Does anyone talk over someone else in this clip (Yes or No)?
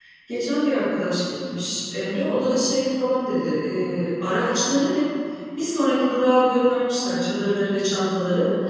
No